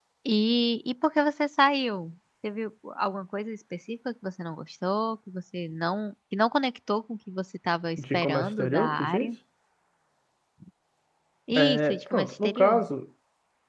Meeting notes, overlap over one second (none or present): present